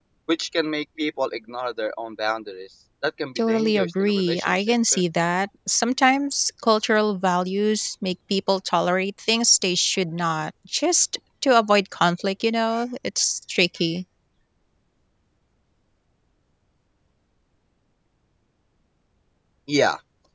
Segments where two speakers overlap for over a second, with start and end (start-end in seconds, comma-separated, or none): 3.4-5.0